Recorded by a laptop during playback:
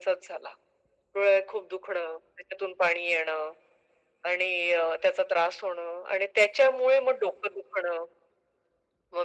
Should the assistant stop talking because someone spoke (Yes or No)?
No